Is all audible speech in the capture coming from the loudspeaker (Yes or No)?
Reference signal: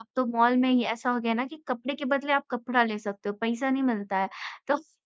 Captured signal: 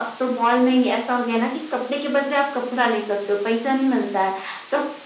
Yes